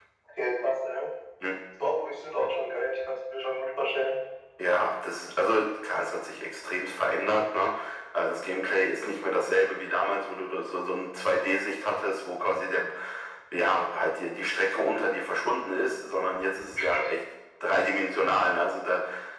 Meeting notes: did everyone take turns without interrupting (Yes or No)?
Yes